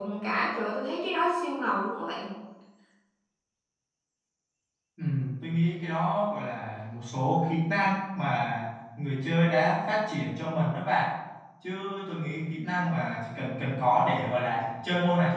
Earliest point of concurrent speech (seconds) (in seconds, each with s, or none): none